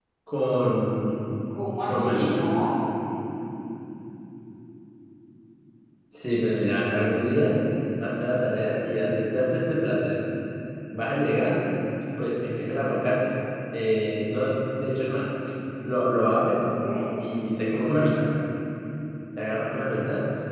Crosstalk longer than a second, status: none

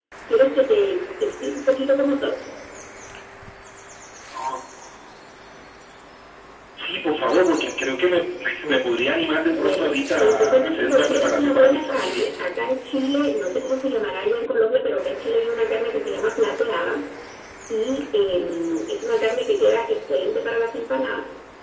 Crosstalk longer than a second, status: present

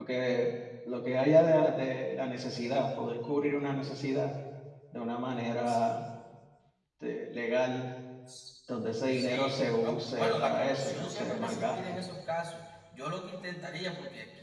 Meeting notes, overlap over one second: present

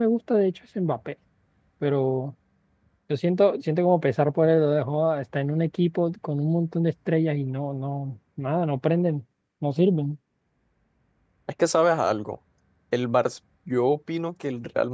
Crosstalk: none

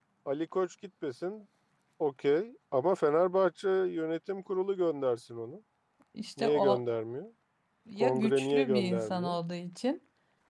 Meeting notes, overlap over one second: present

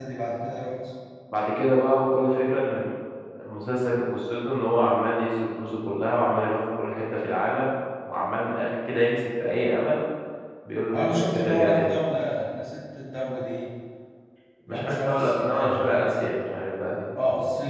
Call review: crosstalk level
present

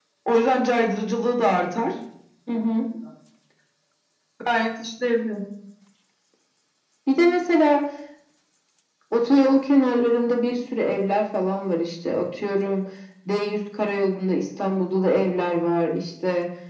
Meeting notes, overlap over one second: none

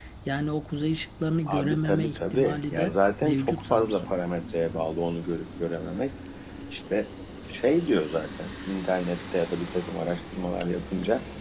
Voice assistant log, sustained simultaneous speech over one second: present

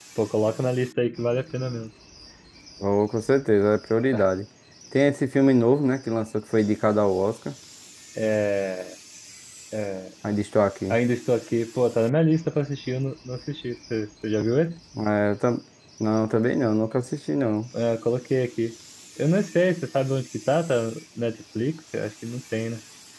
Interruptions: none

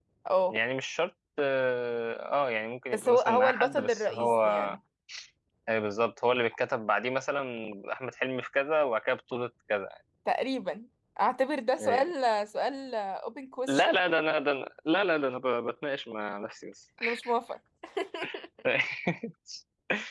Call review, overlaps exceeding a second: present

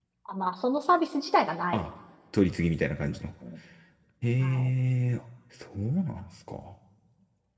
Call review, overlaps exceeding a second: none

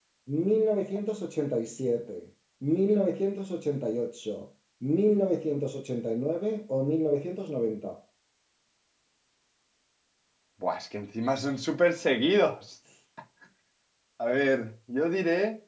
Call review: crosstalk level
none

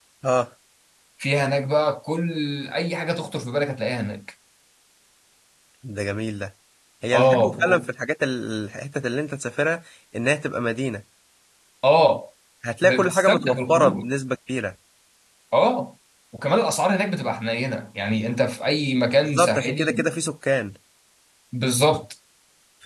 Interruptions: present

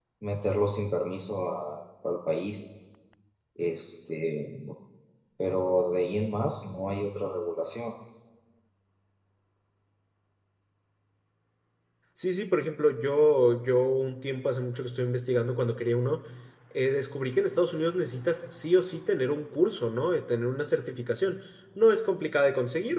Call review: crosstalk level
none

